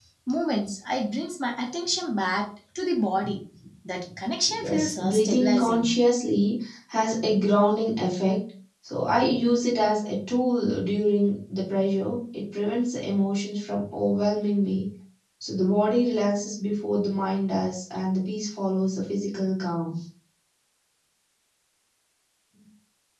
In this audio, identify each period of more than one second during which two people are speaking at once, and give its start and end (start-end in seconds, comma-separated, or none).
4.6-5.9